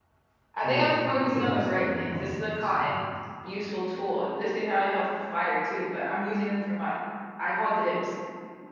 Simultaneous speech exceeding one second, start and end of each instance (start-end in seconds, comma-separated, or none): 0.6-3.0